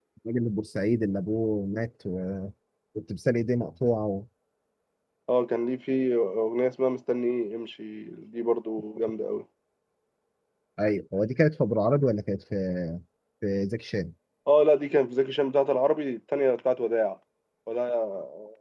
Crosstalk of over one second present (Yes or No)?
No